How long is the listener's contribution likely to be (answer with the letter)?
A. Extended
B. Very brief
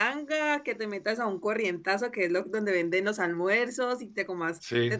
B